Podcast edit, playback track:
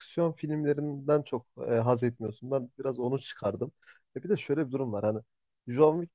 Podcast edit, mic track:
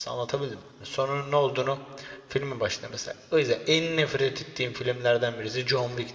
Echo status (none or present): none